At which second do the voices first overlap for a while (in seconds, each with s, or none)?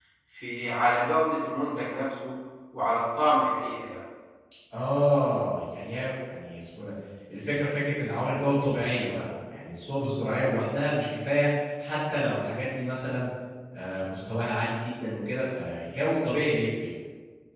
none